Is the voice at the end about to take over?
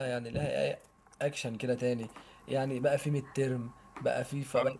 No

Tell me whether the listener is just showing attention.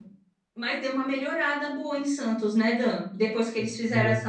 Yes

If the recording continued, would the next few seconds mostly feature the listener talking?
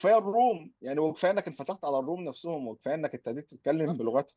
No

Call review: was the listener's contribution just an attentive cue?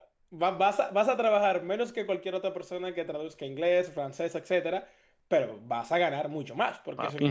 Yes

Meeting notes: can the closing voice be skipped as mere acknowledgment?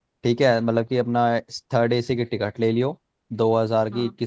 Yes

